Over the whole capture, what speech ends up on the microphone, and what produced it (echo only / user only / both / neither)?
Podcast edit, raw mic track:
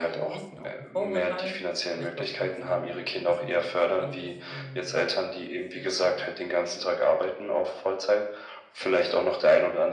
both